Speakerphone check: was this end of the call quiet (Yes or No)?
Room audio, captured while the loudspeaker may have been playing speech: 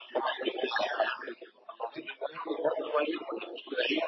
Yes